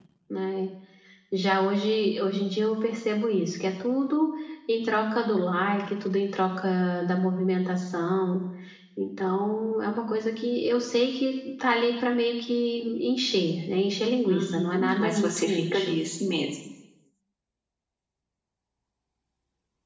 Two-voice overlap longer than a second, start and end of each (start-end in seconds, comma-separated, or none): 14.3-16.0